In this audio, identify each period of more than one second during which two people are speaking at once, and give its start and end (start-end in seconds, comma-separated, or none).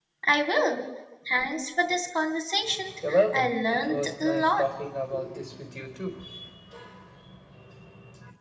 3.3-4.7